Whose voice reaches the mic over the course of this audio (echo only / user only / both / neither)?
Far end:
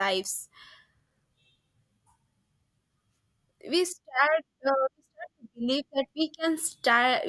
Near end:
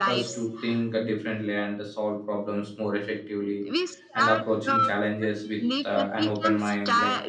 both